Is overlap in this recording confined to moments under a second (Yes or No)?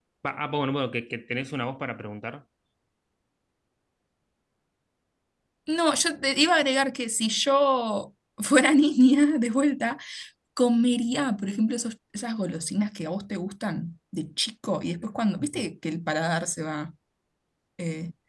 Yes